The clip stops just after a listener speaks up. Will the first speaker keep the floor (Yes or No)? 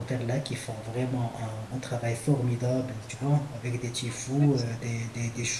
Yes